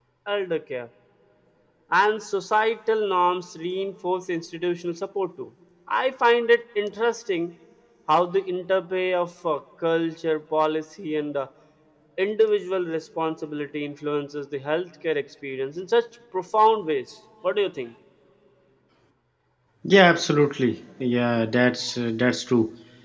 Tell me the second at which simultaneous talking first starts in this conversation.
none

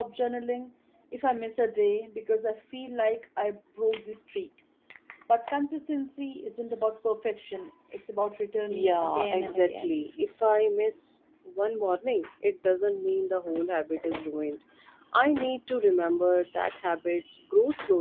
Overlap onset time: 9 s

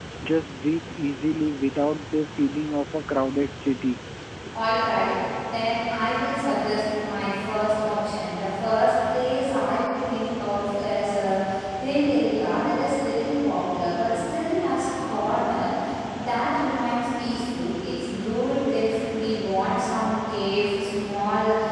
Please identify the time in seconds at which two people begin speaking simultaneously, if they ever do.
none

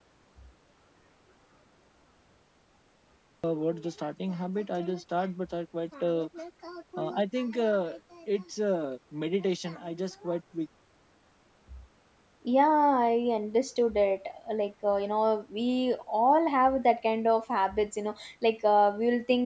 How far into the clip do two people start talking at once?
none

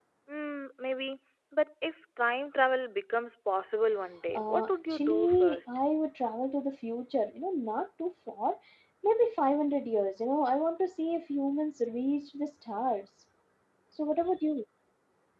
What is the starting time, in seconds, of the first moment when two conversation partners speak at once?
4 s

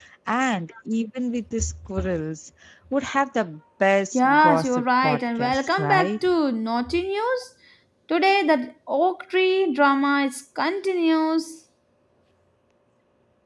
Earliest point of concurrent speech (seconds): 4 s

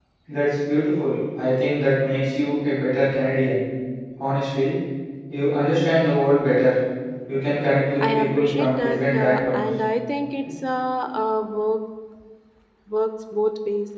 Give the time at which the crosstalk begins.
8 s

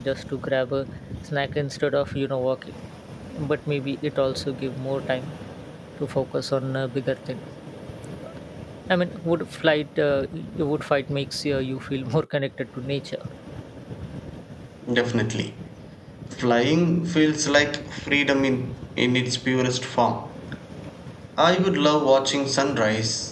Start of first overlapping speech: none

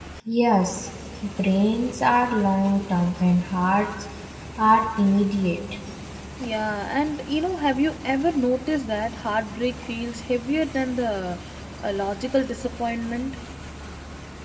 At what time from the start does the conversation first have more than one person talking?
none

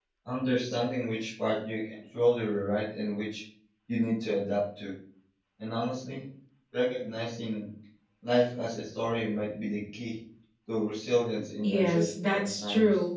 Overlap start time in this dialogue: 12 s

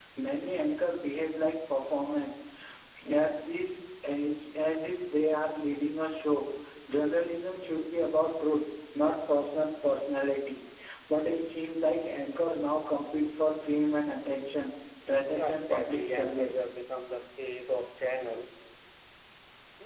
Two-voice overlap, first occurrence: 15 s

